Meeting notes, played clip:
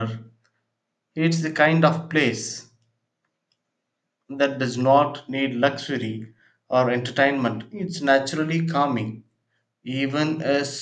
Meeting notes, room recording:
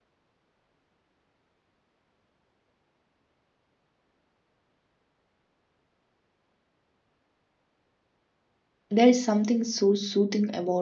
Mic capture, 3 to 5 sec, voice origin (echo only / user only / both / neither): neither